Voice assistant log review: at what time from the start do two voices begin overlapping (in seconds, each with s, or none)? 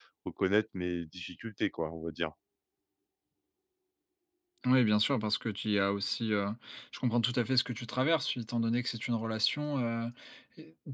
none